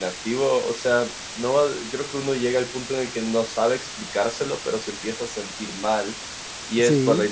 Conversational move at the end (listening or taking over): listening